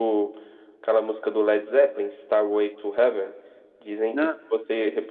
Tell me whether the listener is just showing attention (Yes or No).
Yes